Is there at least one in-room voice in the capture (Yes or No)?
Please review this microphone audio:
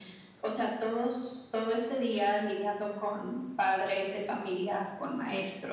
No